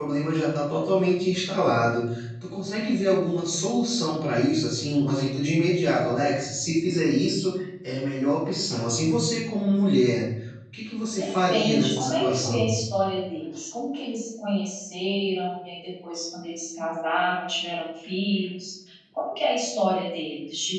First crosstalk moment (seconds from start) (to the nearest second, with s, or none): 11 s